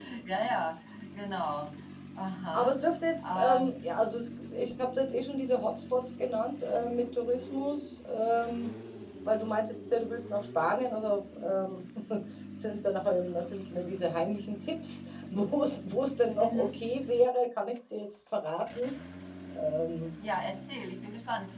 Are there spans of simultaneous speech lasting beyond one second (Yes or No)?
No